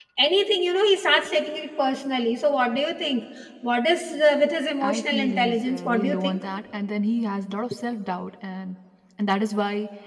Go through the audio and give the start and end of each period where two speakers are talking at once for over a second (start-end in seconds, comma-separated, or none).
4.8-6.4